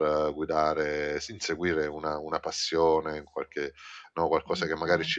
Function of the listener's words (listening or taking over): listening